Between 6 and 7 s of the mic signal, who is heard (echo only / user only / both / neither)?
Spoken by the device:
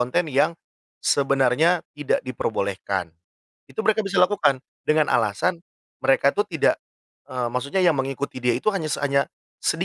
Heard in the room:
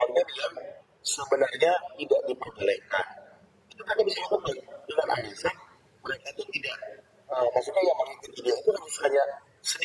echo only